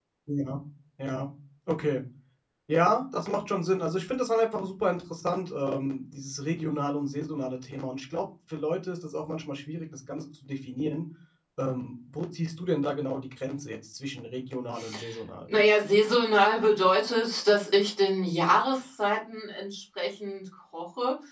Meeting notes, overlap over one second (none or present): none